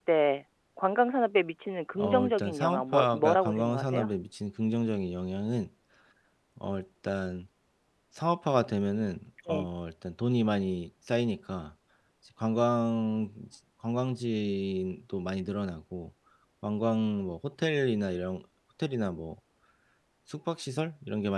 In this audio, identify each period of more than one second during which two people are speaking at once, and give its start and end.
2.0-4.1

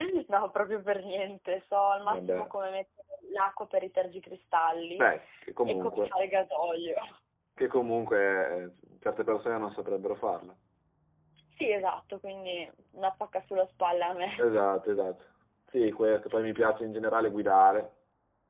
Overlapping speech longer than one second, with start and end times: none

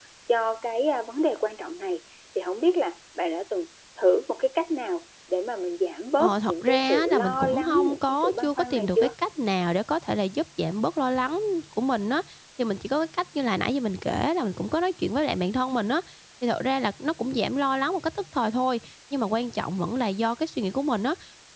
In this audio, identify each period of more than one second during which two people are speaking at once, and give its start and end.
6.2-9.1

